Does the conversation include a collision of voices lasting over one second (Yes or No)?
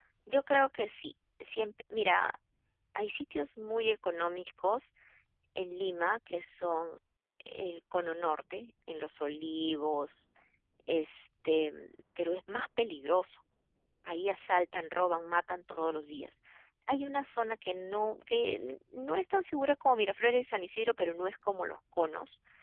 No